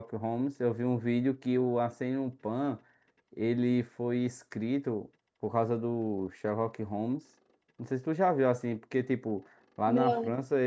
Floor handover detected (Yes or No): No